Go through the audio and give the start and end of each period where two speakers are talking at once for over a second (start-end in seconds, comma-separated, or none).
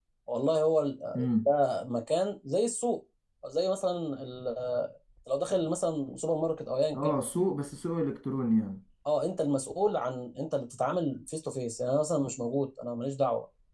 none